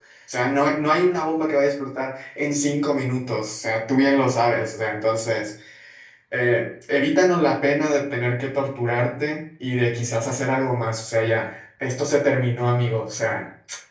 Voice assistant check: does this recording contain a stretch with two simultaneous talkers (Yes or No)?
No